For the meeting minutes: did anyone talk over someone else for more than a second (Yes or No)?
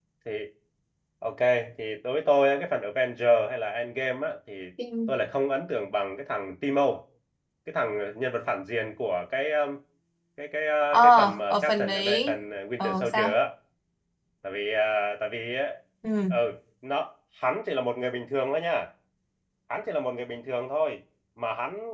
Yes